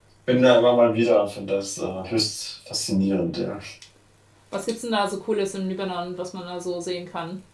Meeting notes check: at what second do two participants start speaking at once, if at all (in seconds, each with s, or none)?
none